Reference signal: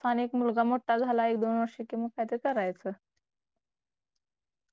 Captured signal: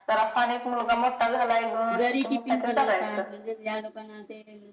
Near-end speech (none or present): present